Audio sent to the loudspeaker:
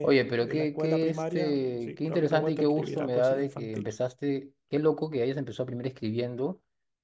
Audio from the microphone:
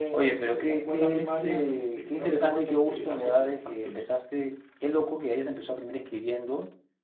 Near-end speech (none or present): none